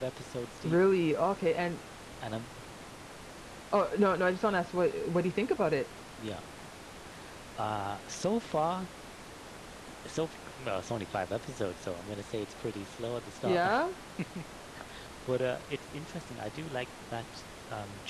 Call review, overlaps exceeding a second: none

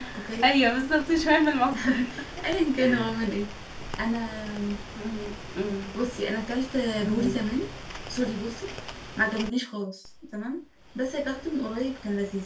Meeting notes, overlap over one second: none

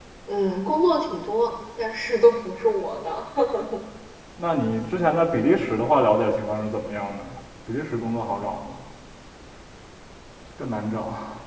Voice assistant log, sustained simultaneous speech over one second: none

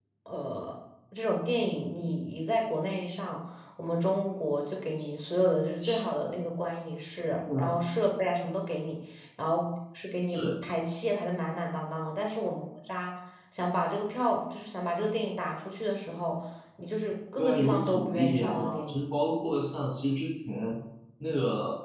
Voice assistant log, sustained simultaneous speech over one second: present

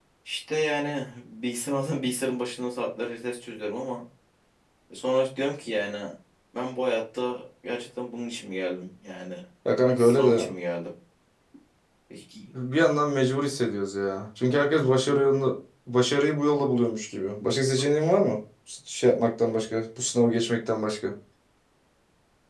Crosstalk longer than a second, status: none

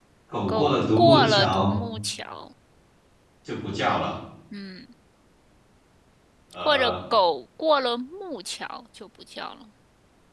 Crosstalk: present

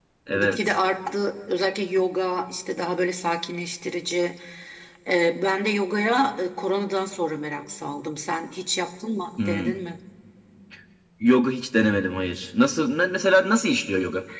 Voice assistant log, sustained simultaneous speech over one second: none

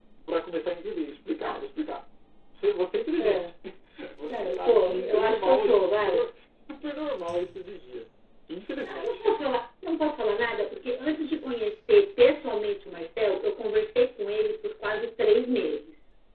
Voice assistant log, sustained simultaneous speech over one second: present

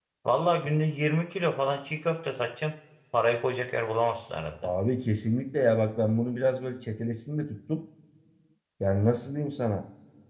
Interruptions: none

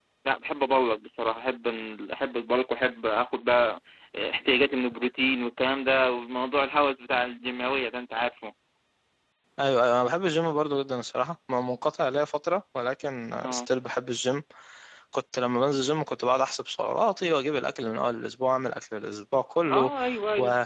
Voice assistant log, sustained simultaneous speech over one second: none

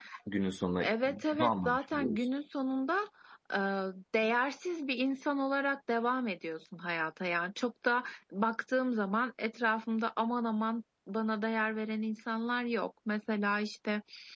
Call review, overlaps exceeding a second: present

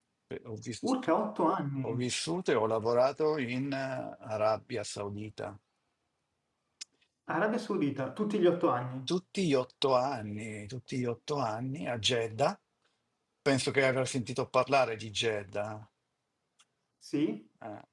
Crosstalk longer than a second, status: none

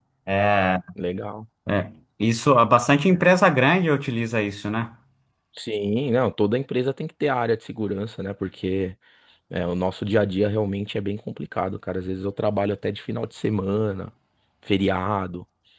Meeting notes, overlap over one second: none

